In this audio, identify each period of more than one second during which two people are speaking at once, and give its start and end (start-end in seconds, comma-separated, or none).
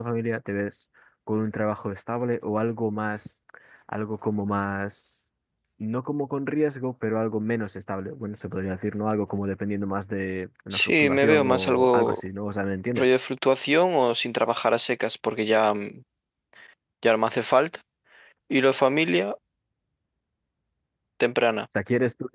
10.7-12.2